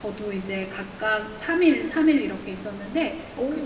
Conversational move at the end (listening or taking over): listening